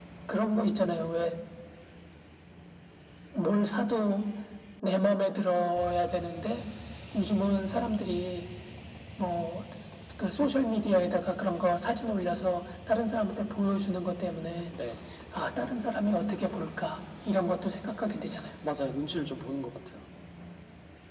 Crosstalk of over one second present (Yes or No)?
No